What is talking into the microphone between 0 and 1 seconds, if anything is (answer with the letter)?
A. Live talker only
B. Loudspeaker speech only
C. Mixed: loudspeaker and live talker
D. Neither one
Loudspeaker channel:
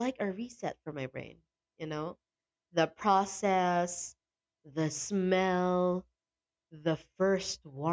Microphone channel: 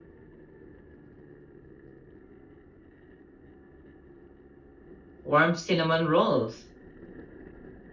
D